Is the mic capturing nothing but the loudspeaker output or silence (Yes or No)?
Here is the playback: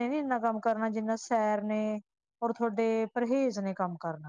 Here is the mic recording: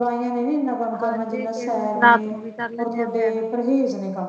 No